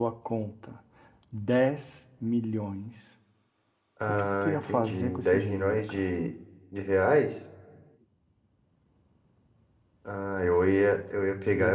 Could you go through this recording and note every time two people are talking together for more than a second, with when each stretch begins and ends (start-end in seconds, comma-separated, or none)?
4.1-6.0